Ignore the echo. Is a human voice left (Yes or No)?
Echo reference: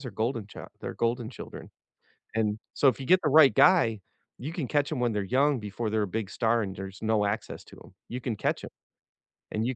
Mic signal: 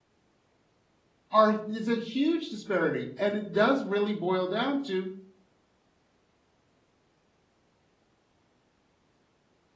Yes